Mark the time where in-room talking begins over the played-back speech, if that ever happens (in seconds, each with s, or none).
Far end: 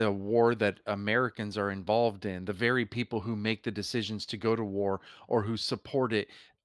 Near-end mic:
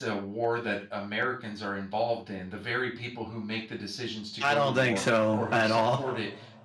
4.4 s